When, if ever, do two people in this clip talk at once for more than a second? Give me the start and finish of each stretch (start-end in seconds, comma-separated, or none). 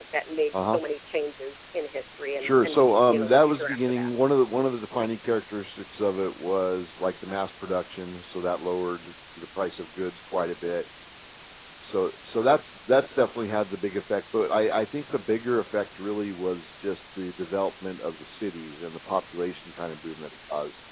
2.4-4.1